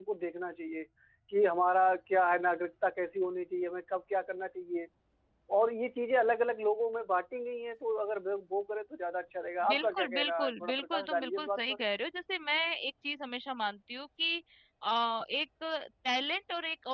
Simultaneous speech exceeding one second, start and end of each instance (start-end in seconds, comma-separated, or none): 9.7-11.6